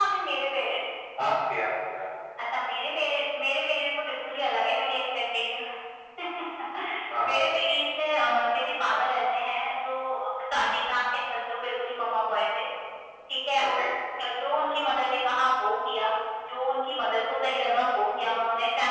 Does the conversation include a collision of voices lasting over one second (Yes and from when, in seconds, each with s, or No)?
No